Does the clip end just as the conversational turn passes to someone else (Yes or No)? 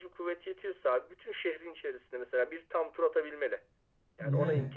No